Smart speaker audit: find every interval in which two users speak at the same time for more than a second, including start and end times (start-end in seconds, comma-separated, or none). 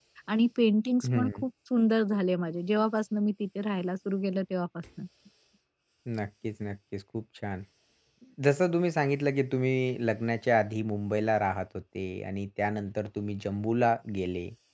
none